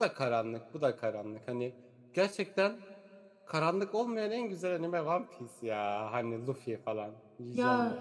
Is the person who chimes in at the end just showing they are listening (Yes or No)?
No